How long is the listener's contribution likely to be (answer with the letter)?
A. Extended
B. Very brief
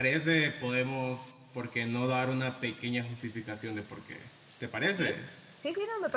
A